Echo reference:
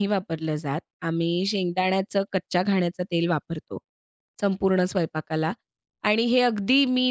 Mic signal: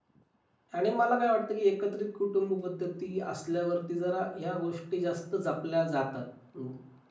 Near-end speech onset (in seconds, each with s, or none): 0.7 s